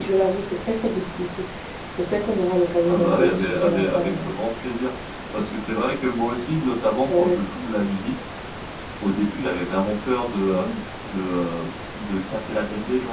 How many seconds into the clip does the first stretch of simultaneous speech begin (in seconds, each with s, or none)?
2.9 s